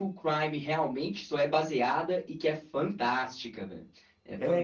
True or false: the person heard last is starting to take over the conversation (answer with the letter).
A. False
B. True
B